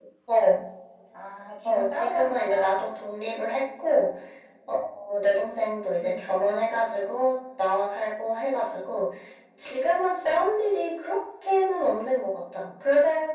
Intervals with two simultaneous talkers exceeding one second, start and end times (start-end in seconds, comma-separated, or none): 1.6-2.9